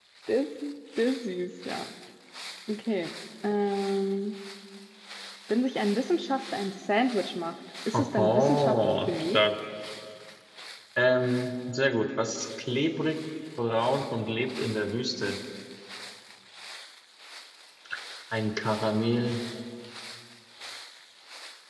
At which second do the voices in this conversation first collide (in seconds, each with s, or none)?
7.9 s